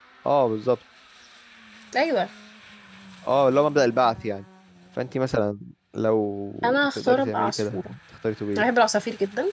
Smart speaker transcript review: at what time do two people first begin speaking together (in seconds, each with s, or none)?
6.6 s